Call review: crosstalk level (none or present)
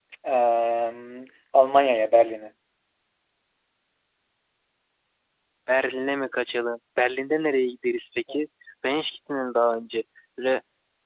none